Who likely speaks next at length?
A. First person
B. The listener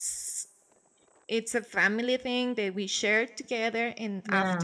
A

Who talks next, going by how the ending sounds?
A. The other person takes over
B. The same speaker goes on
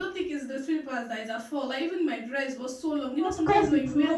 A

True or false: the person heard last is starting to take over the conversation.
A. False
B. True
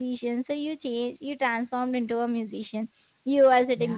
A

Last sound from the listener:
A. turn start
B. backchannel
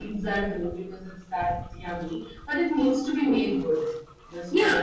A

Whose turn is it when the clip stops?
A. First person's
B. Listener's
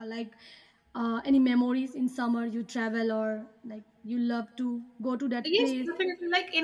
B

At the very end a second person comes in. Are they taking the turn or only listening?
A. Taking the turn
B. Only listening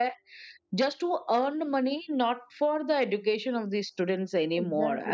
A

